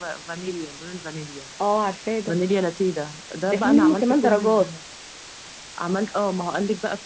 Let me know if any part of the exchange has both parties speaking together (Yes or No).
Yes